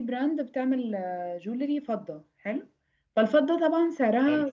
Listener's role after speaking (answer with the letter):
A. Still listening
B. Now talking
A